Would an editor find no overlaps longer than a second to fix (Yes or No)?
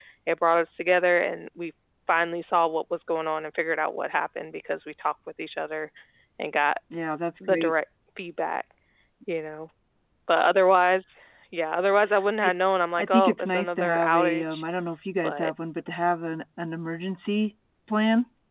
No